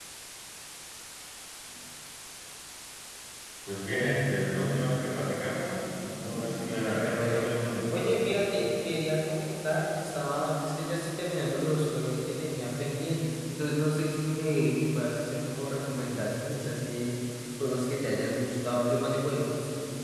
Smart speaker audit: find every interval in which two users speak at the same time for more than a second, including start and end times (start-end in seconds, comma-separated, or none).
6.2-8.3